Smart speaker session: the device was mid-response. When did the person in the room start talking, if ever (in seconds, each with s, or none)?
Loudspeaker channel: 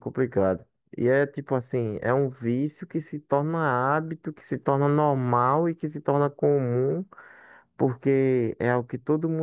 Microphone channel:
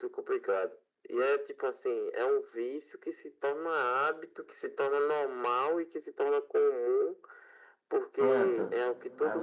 8.2 s